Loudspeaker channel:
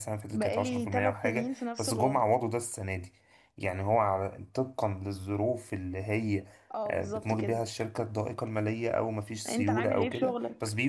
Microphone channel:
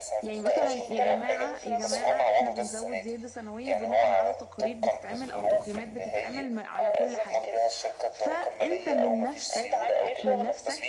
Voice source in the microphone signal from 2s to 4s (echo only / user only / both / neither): both